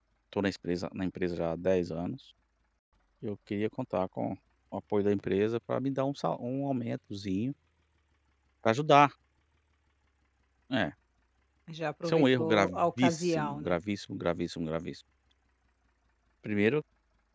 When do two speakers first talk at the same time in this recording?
12 s

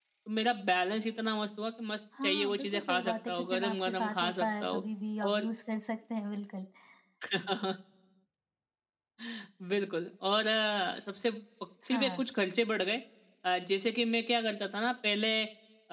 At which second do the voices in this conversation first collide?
2 s

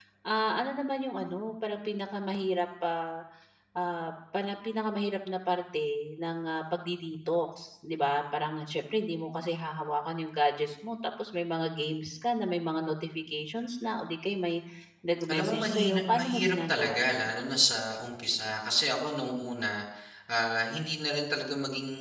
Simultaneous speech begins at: 15 s

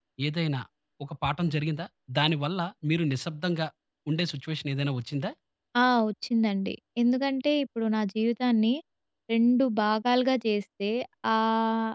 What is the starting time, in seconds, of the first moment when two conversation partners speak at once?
none

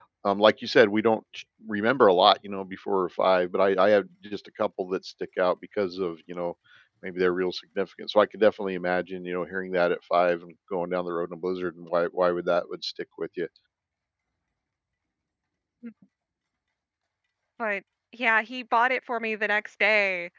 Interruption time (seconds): none

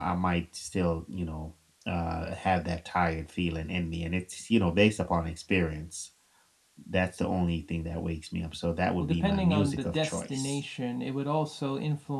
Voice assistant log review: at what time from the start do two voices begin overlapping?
9 s

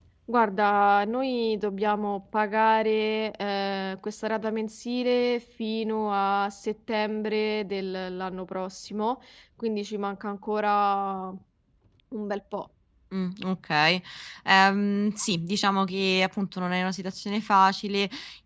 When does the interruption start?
none

